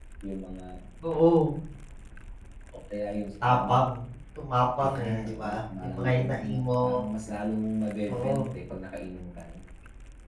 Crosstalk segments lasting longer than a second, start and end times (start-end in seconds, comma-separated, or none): 4.9-6.7